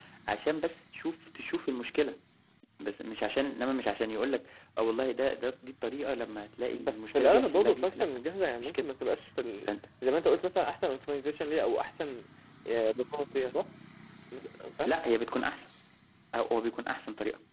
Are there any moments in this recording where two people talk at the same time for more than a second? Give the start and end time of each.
6.7-8.1

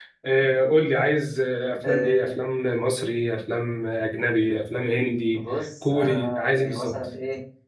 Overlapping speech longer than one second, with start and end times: 5.3-7.0

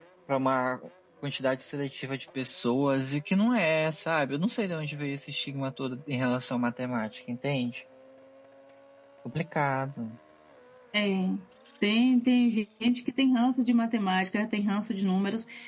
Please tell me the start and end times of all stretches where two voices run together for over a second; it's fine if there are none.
none

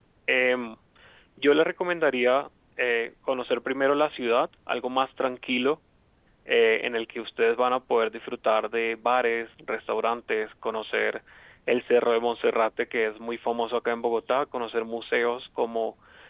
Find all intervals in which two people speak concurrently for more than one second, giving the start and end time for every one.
none

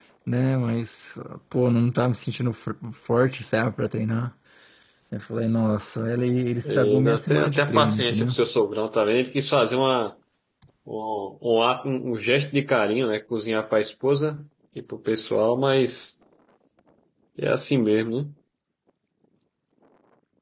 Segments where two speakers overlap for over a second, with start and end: 6.6-8.3

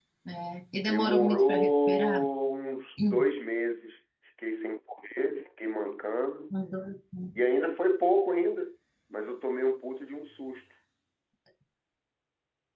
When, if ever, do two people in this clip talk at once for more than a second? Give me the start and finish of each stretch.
0.8-2.2

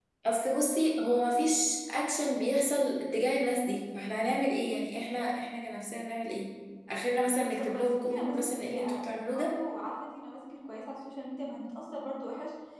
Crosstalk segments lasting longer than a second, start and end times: 7.3-9.5

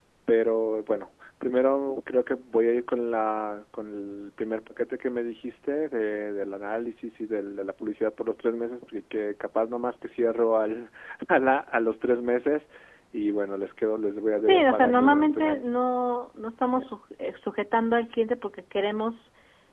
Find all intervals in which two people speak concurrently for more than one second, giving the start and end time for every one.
14.4-15.6

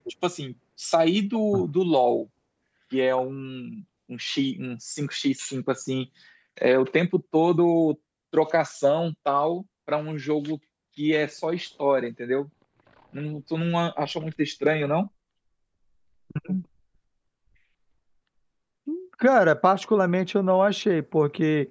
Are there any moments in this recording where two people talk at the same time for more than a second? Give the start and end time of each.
none

